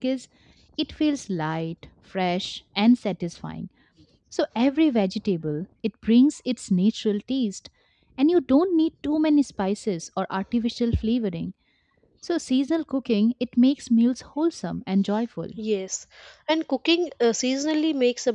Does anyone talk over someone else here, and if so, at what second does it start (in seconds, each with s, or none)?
none